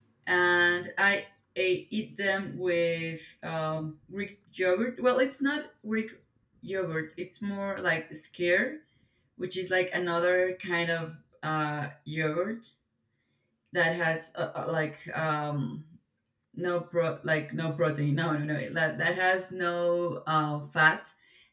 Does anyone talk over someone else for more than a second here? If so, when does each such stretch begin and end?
none

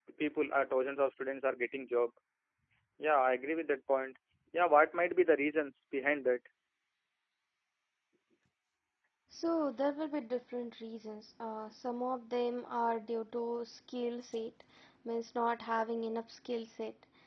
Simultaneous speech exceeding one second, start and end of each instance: none

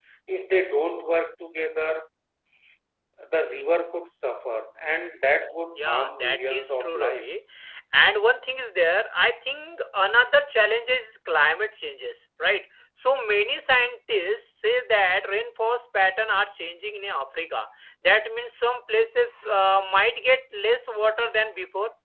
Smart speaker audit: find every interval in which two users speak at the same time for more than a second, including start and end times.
5.7-7.4

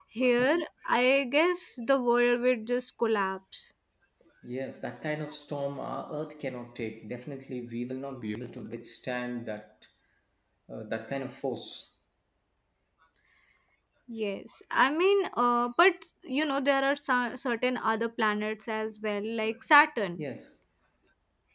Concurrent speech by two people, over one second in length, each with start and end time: none

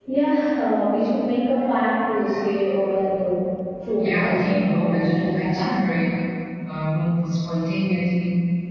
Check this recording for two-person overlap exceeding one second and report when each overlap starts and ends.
4.0-5.9

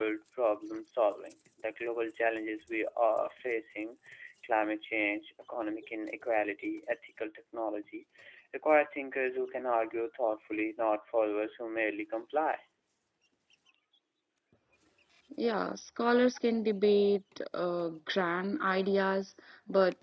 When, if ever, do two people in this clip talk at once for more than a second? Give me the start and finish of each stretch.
none

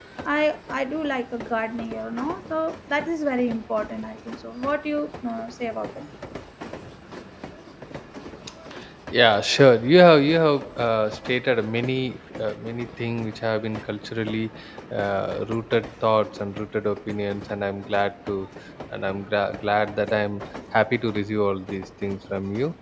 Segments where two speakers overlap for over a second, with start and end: none

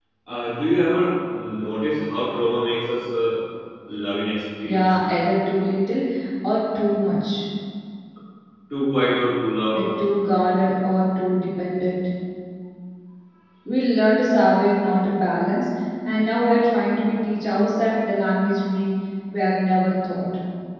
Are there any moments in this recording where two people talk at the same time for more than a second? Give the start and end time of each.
none

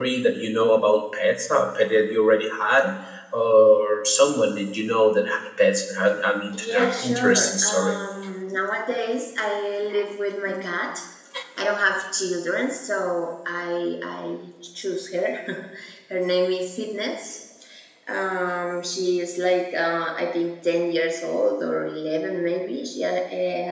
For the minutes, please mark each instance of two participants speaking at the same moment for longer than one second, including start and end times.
6.5-8.0

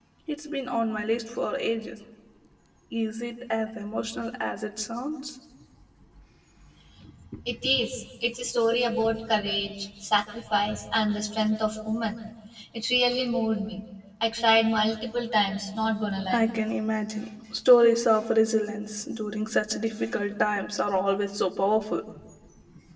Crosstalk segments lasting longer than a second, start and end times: none

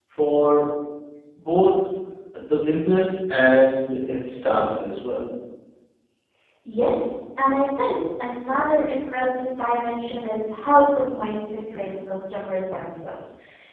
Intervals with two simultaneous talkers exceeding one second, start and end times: none

